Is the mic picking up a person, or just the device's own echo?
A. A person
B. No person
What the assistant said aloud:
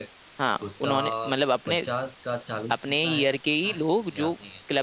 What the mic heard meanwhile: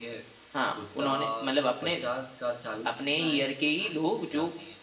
B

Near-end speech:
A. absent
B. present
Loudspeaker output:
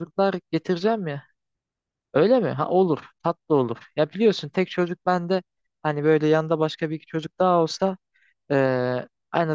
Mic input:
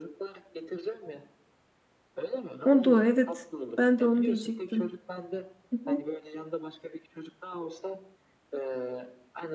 B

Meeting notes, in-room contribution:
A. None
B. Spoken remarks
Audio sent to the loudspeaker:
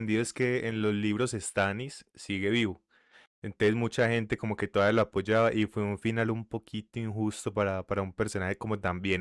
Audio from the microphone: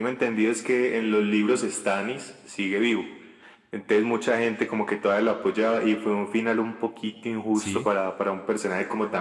B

